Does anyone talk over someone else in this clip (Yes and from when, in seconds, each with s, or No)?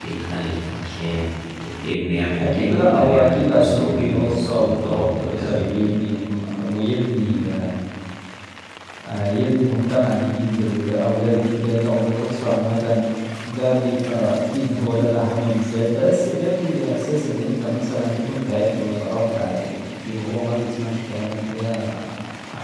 Yes, from 2.3 s